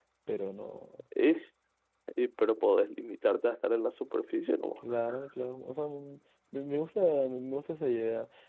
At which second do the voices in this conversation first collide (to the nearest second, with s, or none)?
none